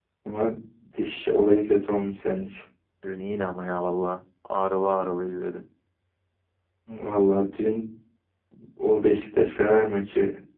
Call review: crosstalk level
none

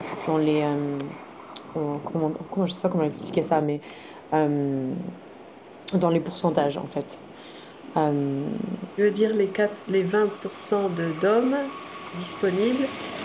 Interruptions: none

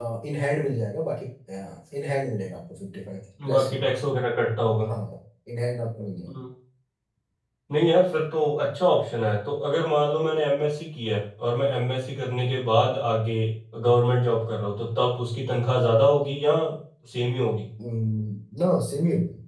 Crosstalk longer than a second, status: none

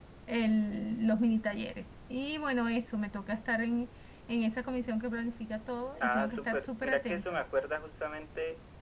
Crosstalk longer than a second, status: present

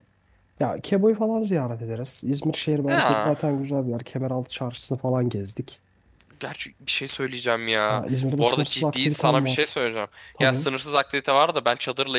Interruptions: present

